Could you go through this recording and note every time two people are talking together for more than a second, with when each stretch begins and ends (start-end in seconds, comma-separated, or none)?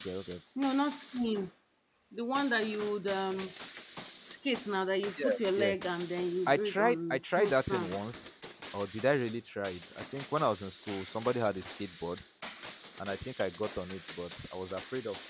6.5-7.9